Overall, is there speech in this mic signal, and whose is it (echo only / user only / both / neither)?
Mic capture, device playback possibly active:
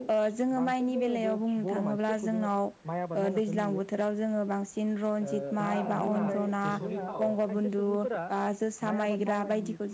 both